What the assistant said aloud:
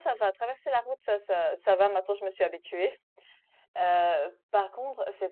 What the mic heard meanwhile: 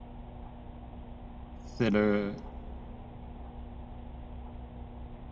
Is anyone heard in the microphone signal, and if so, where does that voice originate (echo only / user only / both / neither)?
user only